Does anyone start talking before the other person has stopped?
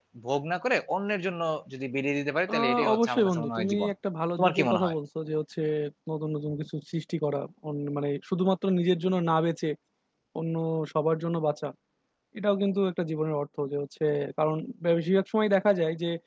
Yes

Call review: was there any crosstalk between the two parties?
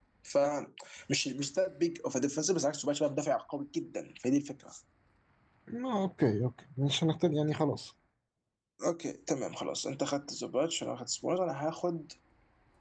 No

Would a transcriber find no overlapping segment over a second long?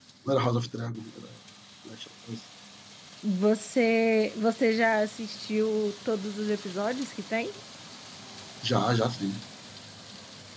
Yes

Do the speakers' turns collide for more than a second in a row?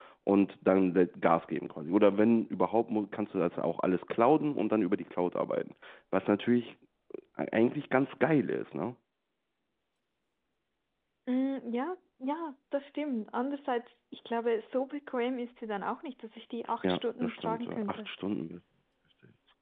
Yes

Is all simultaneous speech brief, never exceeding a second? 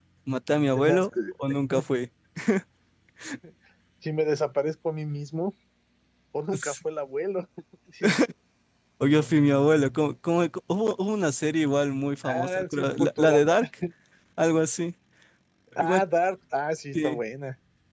No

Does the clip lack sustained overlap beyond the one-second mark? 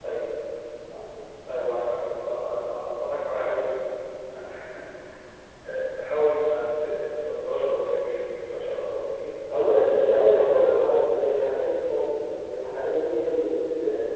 No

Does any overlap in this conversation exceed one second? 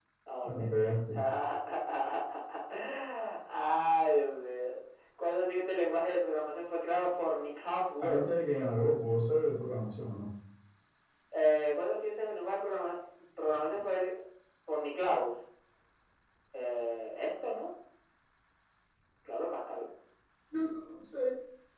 No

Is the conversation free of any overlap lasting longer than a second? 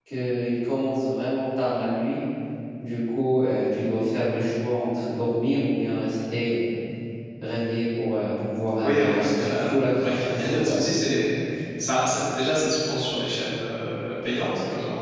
No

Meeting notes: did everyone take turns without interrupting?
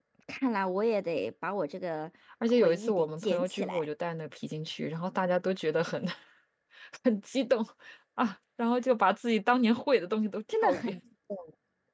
No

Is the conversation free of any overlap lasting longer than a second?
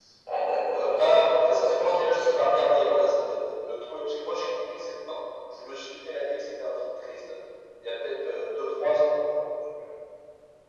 No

